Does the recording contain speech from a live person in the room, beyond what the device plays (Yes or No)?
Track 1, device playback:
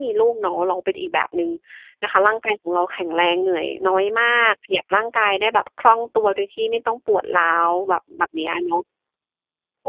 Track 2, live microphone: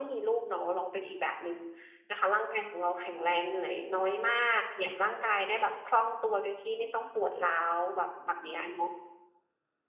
No